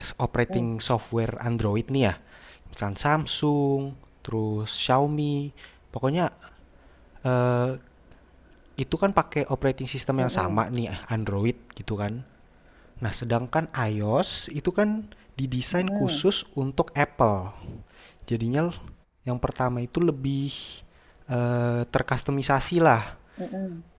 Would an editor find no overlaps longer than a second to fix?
Yes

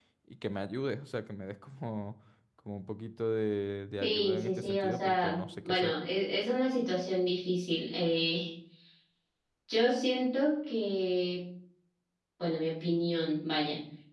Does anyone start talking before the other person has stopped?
Yes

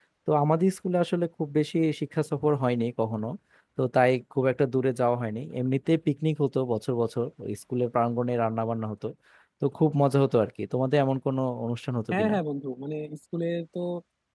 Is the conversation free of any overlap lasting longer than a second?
Yes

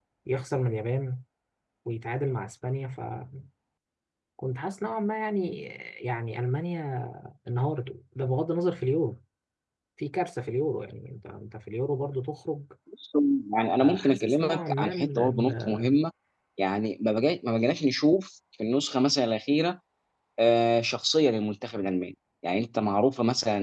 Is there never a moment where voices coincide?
No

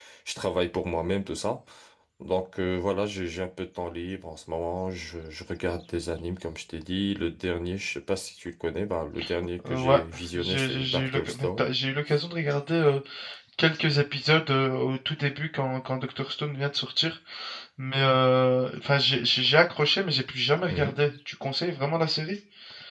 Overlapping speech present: Yes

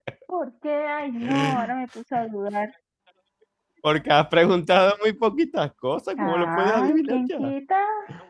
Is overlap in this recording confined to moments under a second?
No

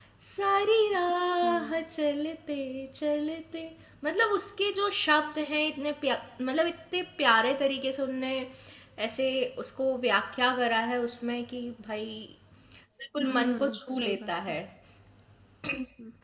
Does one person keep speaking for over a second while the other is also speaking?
Yes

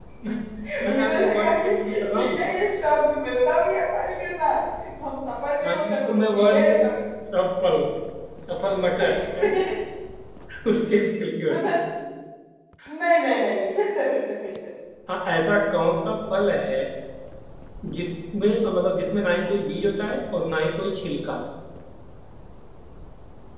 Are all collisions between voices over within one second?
No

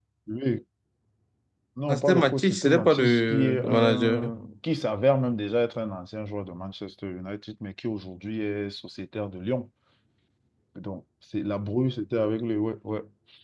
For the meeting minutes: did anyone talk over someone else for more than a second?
Yes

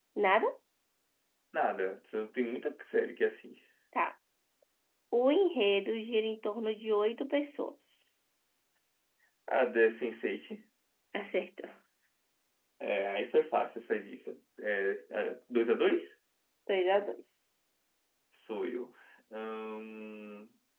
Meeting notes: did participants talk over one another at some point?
No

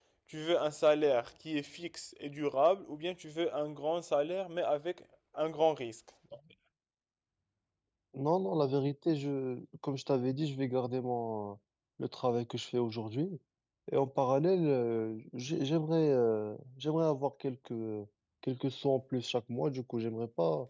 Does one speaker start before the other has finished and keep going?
No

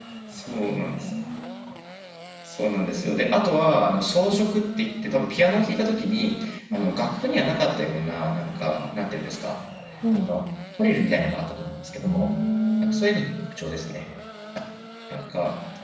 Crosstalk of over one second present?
No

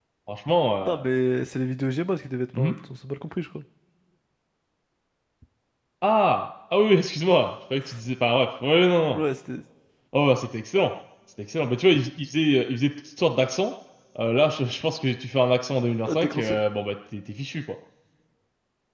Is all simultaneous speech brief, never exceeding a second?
Yes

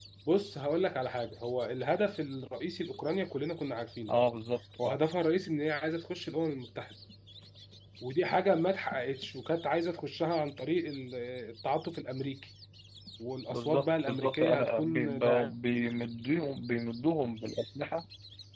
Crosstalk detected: Yes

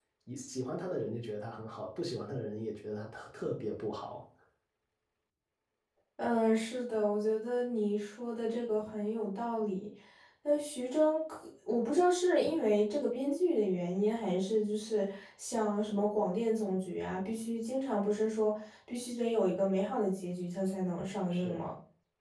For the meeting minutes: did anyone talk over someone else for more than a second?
No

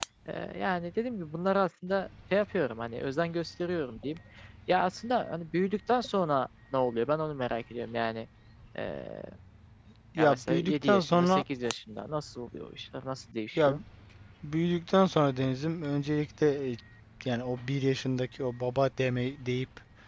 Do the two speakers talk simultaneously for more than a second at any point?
Yes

